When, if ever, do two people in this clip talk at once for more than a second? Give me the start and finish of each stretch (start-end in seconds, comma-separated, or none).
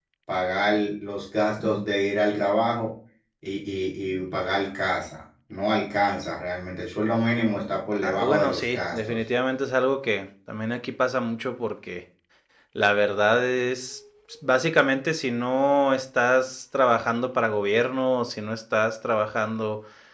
8.0-9.2